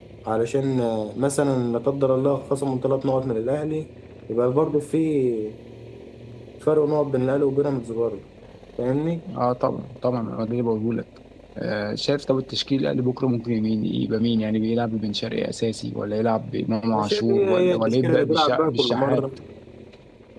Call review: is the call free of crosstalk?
No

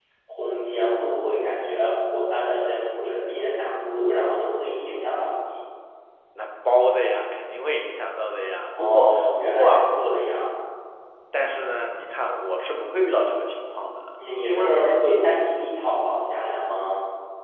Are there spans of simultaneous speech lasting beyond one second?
Yes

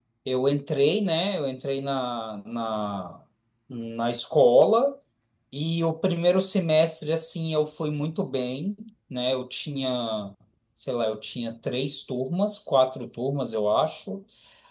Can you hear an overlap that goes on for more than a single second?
No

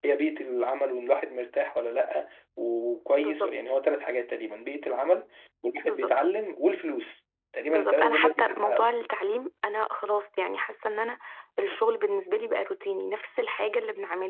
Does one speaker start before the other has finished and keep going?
Yes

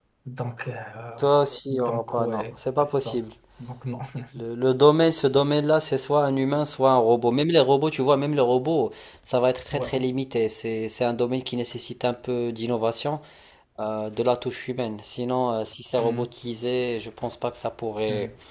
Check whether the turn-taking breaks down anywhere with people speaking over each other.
Yes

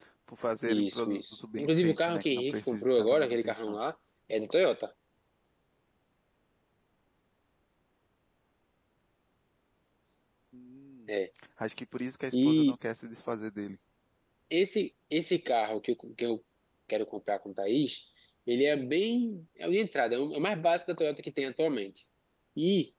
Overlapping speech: Yes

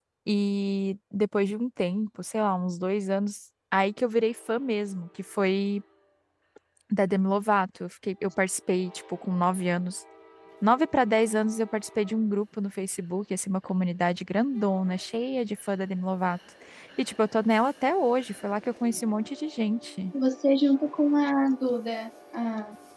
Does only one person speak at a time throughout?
Yes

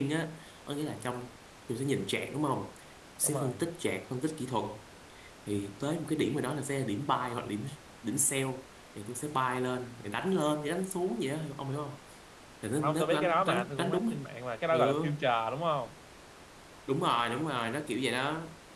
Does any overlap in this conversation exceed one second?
Yes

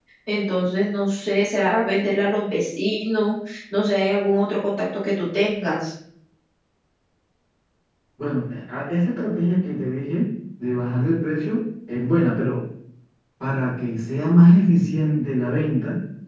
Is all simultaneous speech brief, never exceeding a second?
Yes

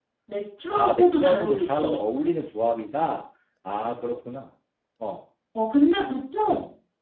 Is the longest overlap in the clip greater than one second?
Yes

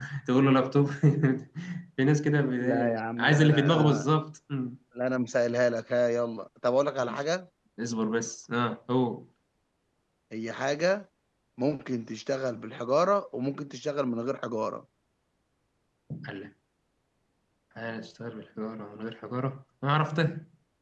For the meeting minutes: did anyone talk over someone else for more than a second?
Yes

